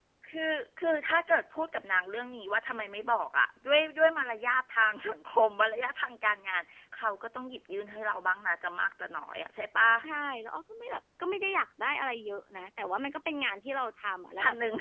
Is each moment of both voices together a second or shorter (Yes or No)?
Yes